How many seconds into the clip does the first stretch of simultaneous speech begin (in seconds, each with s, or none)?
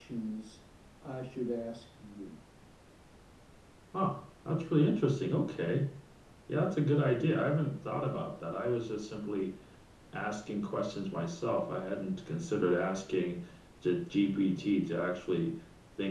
none